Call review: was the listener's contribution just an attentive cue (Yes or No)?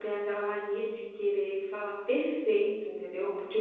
Yes